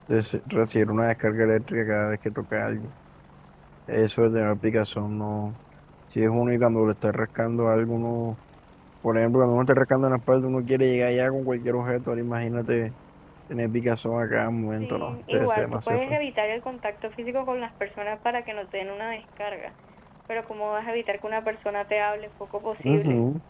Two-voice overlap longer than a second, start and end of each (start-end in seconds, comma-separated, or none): 14.8-16.2